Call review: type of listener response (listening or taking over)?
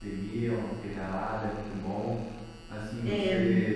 listening